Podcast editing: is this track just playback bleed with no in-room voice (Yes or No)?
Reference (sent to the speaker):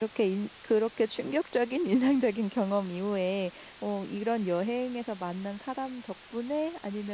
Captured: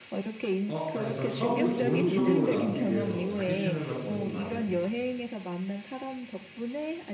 No